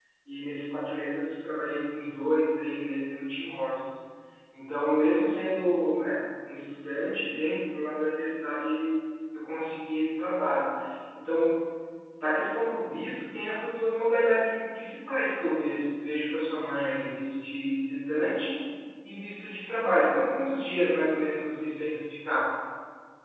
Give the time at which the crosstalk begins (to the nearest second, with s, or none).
none